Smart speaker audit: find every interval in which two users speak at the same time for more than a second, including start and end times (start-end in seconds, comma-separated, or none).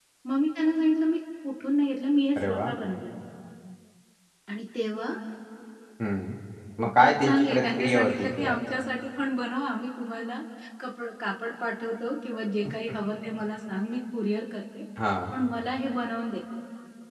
6.8-8.6